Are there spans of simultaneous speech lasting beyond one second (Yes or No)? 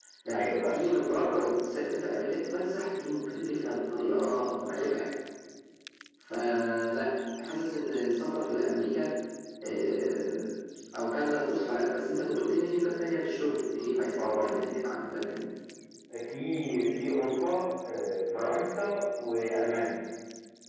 No